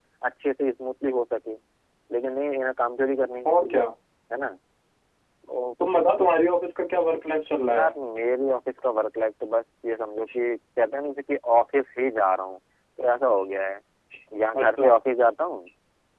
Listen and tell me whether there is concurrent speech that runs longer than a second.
No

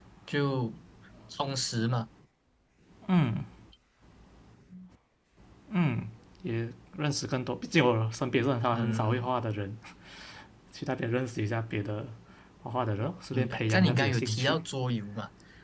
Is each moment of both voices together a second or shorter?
No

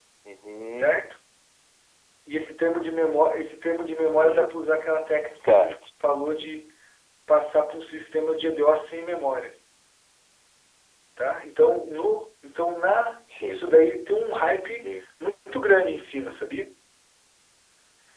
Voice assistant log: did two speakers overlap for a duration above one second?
No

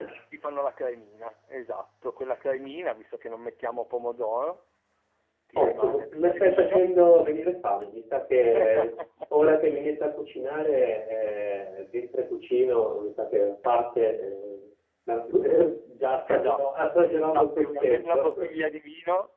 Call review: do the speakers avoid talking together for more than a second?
No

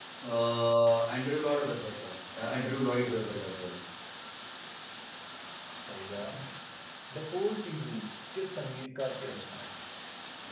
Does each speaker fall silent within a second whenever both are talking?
Yes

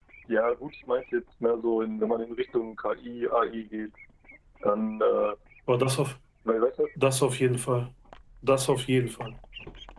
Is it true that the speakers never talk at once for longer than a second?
Yes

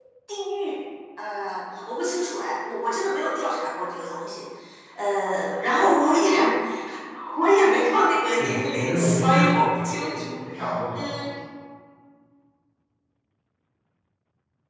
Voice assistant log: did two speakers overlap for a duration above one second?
Yes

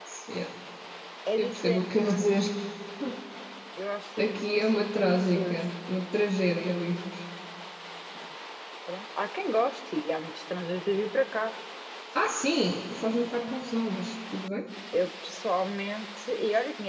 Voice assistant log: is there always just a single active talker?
No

